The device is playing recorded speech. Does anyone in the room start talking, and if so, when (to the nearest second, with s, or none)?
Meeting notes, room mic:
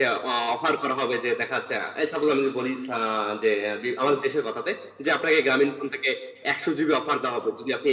none